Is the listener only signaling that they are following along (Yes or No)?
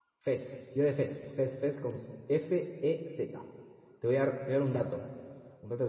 Yes